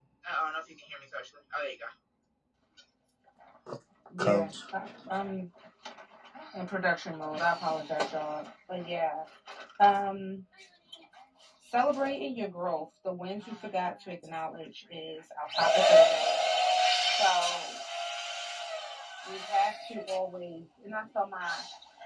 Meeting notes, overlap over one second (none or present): none